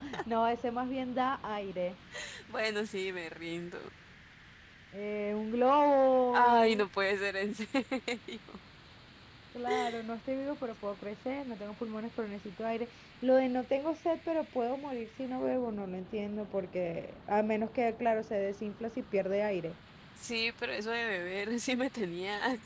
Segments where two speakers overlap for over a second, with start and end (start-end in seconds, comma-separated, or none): none